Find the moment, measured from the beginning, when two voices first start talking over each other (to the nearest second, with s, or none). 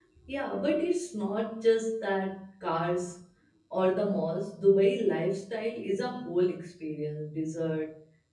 none